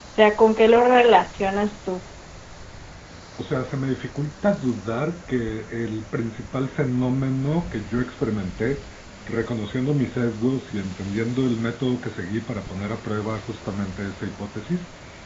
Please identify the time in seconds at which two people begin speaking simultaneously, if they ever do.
none

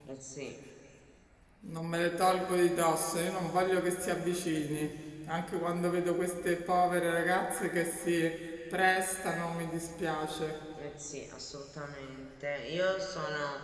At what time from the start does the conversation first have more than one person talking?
none

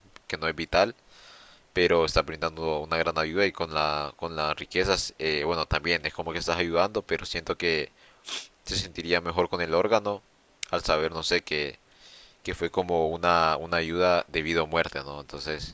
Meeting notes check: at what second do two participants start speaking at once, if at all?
none

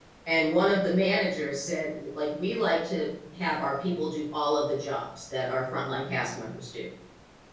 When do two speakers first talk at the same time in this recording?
none

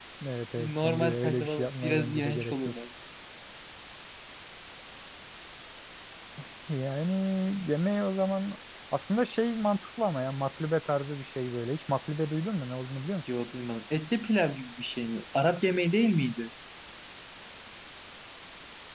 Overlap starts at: 0.6 s

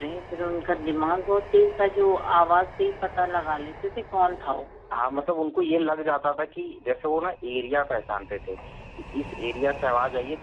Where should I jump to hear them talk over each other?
none

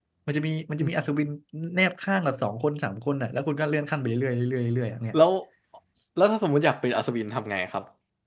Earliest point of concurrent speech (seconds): none

